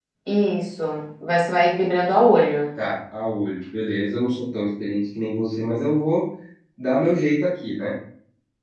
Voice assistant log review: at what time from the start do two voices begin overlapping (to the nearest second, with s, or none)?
none